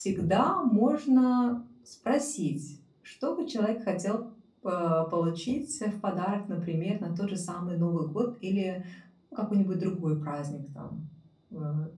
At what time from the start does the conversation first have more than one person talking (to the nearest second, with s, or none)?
none